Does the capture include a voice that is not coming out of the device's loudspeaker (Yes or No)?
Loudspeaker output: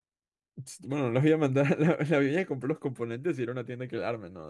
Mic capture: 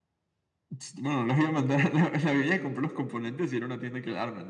No